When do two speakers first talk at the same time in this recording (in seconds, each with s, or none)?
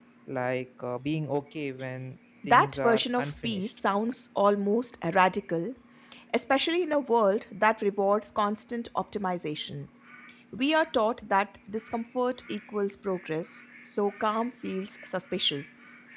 2.4 s